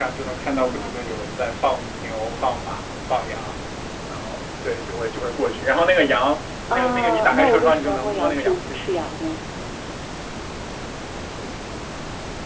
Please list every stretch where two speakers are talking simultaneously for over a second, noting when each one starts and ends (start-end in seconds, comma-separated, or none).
6.7-8.8